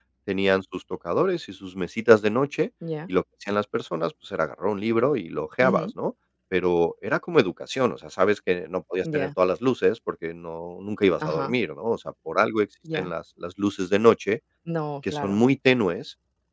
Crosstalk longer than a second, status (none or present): none